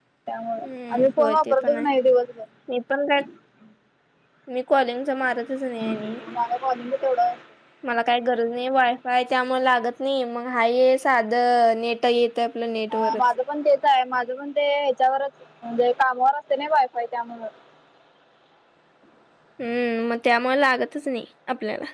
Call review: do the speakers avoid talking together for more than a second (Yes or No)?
No